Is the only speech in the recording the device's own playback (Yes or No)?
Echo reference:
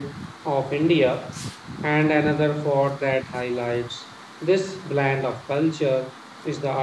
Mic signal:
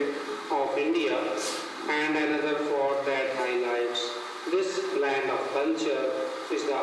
Yes